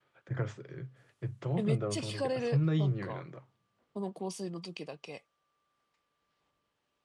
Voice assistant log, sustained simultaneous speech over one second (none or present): present